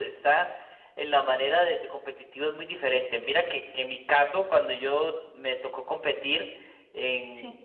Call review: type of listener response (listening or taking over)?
listening